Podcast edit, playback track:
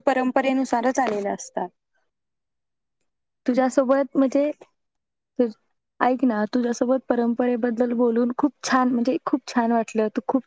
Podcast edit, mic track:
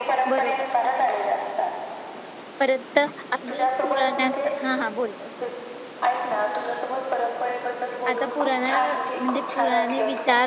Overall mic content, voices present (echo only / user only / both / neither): both